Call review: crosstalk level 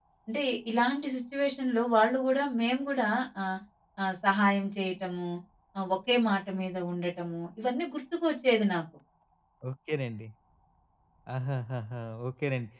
none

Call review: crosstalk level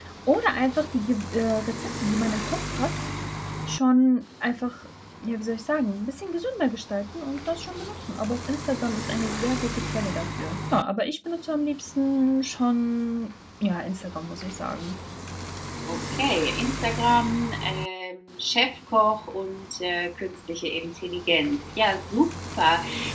none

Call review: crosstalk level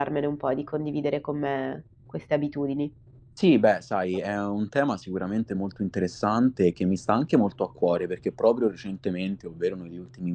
none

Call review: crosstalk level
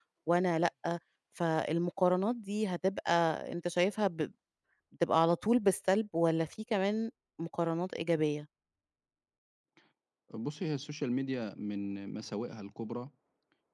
none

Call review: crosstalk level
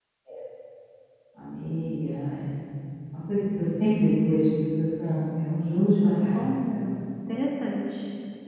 none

